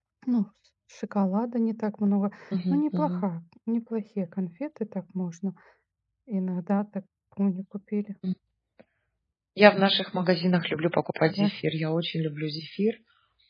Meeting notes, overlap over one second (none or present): none